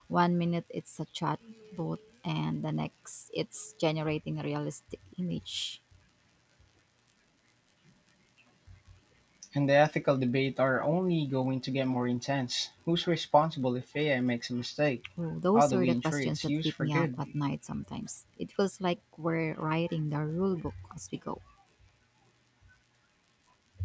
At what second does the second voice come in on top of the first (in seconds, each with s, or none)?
15.5 s